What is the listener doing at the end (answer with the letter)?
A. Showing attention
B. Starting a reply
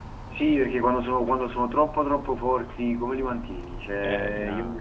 A